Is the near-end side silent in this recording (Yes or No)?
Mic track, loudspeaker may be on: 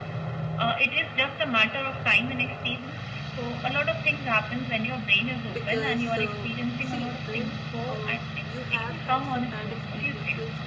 No